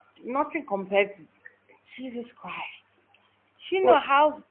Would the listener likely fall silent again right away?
Yes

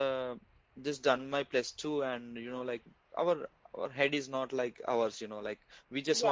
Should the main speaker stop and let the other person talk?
No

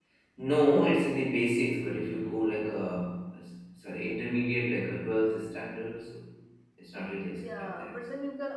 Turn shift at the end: Yes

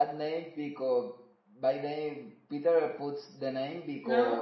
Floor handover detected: No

